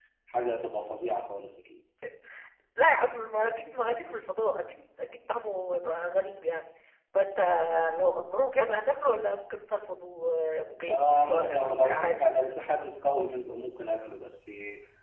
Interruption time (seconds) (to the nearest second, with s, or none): 11 s